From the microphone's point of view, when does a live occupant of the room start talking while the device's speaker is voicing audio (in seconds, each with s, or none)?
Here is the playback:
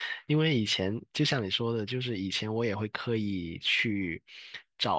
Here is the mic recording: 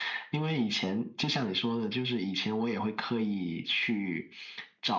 none